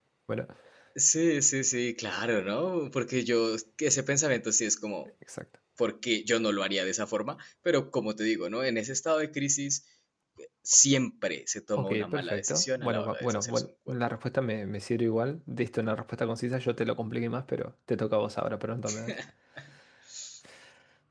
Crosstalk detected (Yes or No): Yes